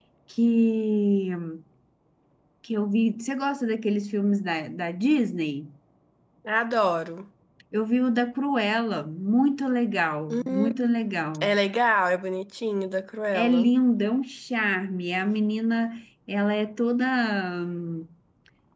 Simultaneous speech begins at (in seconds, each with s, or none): 10.3 s